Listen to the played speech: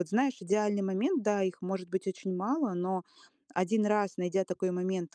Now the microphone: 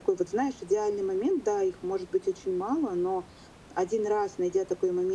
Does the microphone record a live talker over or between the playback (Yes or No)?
No